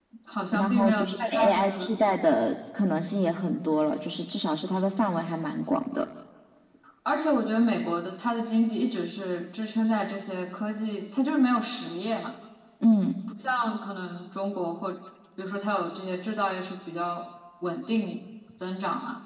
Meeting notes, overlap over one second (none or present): present